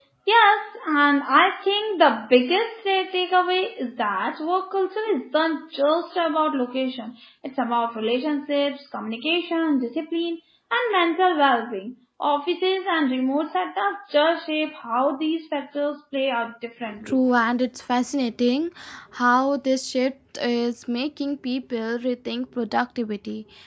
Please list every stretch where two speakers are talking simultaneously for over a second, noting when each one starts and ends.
none

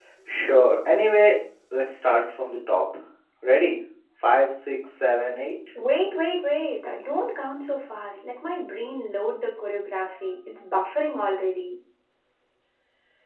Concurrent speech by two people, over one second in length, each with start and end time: none

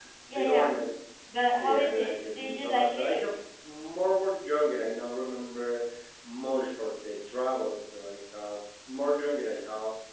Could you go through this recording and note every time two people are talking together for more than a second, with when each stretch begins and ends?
1.6-3.2

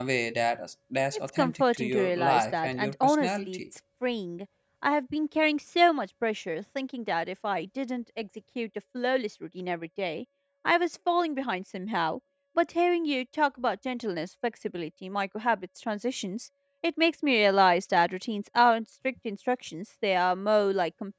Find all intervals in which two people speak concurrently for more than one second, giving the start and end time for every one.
1.4-3.6

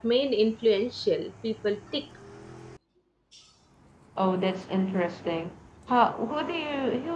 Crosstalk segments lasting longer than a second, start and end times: none

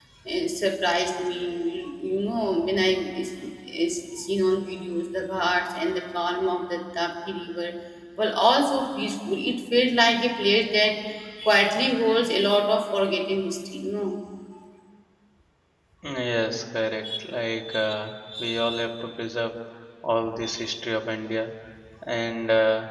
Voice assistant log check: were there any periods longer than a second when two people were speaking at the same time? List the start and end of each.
none

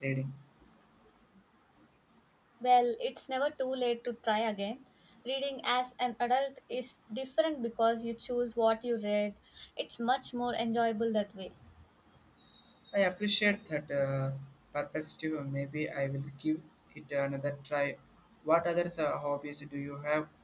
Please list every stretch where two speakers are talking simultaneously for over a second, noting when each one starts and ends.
none

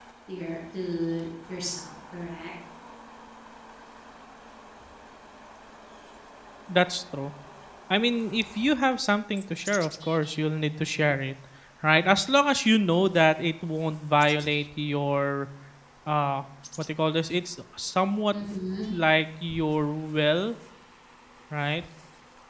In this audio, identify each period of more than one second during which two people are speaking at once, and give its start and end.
none

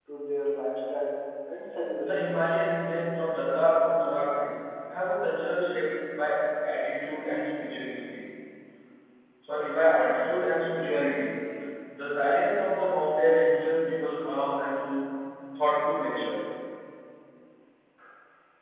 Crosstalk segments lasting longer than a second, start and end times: none

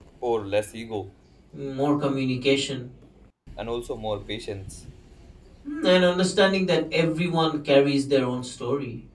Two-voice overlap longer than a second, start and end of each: none

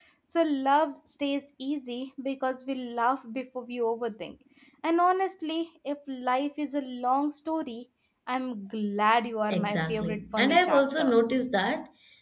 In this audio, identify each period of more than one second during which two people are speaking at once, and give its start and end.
9.5-11.2

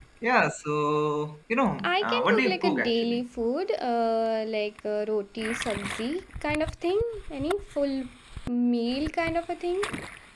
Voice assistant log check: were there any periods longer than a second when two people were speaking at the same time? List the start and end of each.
1.8-3.2

